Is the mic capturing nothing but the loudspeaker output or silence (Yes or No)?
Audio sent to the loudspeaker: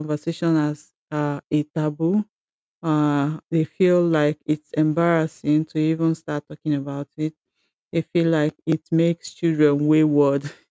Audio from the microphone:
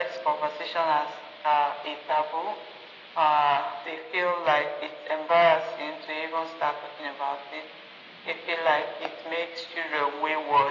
Yes